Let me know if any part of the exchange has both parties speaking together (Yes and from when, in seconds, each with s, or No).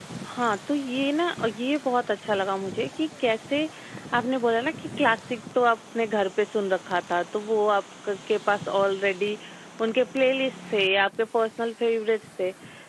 No